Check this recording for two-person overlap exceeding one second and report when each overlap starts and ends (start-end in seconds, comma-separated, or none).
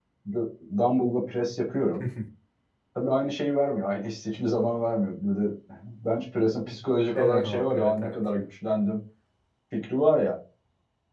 7.2-8.5